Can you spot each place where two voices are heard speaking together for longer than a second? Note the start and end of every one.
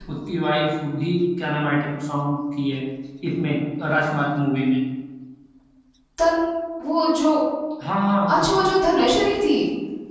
none

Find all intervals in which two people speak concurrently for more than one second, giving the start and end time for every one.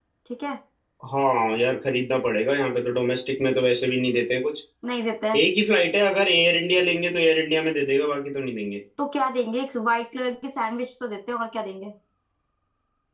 none

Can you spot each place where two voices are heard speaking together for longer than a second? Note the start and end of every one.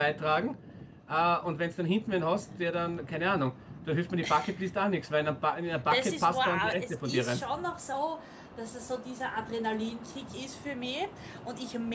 5.9-7.4

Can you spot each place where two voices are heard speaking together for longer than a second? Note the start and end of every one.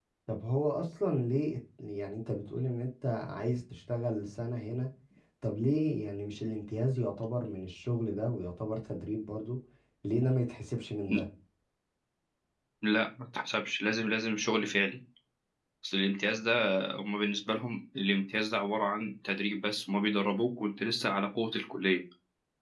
none

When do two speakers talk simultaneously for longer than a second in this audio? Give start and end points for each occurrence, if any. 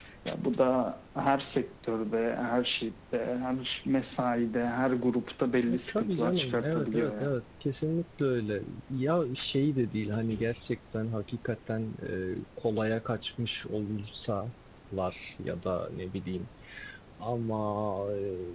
5.7-7.3

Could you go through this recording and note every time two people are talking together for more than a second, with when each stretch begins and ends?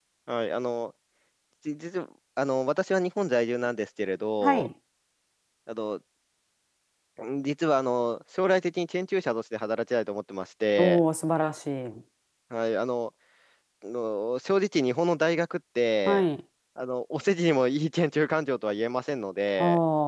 none

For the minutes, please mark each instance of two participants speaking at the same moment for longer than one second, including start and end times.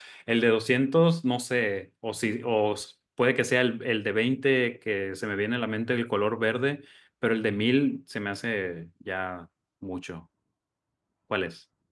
none

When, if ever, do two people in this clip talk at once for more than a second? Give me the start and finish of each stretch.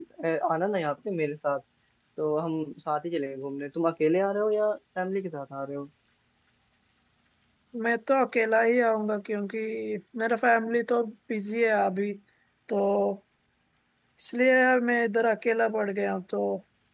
none

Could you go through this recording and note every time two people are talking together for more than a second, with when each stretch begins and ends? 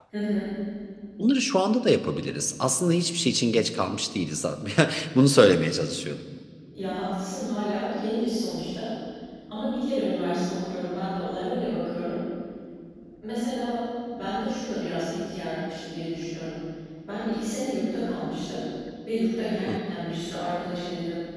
none

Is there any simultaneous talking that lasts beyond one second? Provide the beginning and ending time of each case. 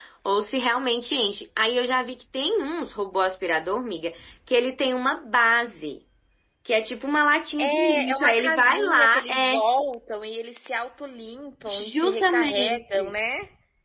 7.6-9.6, 11.7-13.1

